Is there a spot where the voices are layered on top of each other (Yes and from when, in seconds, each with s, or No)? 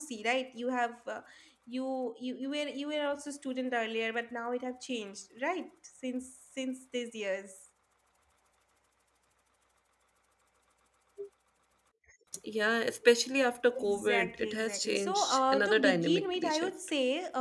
Yes, from 13.7 s